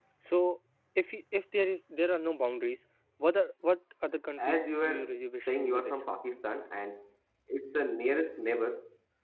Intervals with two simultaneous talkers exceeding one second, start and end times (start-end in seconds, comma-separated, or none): 4.4-5.9